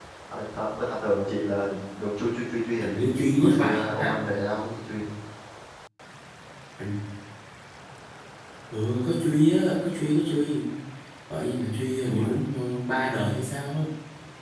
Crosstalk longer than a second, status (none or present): present